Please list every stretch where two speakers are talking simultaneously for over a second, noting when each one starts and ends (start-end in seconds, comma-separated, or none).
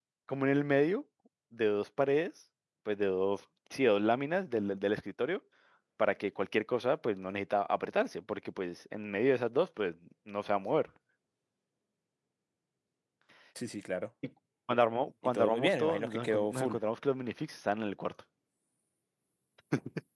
15.2-16.8